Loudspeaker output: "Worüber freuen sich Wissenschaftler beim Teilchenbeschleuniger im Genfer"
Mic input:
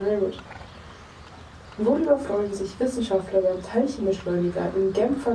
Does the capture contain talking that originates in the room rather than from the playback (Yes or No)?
No